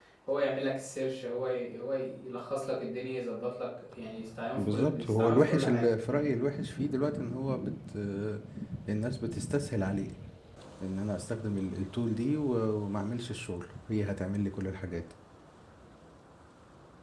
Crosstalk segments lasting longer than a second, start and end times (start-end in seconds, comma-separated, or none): 4.6-5.9